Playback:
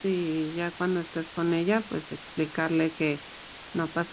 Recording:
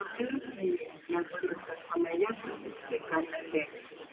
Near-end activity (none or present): present